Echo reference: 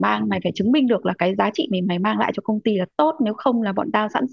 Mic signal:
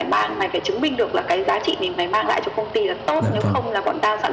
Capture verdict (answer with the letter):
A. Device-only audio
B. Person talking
B